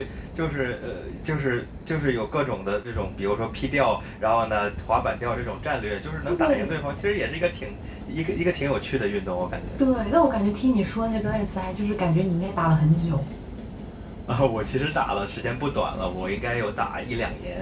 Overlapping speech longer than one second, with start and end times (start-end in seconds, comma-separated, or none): none